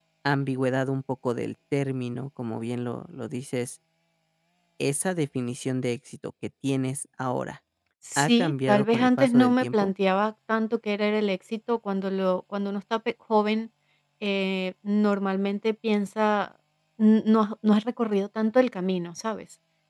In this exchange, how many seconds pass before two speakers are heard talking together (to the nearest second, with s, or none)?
8 s